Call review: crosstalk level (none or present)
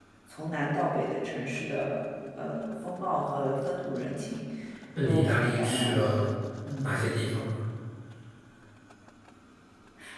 present